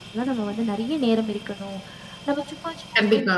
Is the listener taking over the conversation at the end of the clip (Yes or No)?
No